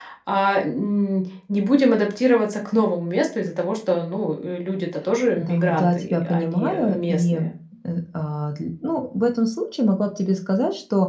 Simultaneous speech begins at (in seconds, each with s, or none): 5.4 s